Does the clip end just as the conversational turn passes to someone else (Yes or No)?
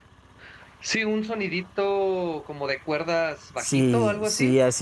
Yes